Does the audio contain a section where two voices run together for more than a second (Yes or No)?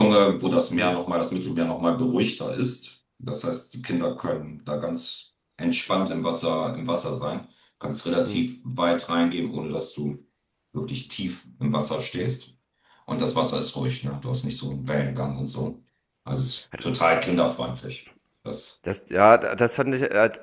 No